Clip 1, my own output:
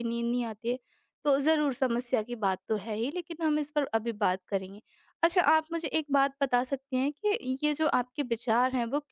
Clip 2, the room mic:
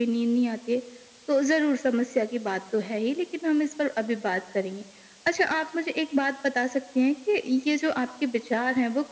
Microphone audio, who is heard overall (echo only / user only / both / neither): echo only